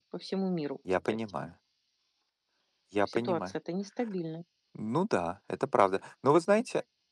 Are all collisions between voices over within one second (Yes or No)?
Yes